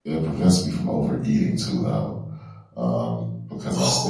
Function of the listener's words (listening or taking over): taking over